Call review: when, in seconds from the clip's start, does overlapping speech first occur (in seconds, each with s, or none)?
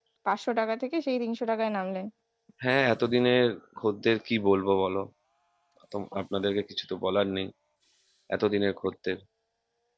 none